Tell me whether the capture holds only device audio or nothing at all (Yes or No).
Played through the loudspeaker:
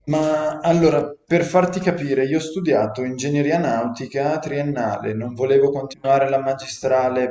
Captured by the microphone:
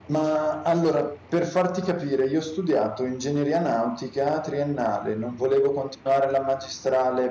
Yes